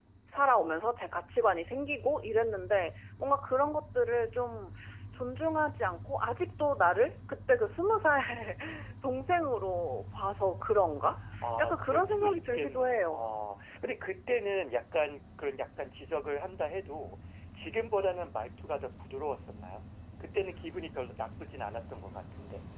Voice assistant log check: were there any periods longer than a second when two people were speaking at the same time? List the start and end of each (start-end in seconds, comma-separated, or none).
11.6-13.3